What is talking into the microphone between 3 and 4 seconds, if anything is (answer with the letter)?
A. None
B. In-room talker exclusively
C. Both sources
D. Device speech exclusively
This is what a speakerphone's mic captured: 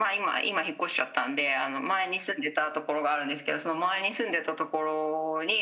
D